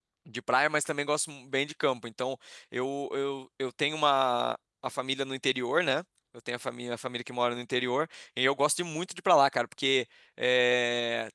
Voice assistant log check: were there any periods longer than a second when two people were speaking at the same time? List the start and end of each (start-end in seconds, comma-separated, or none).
none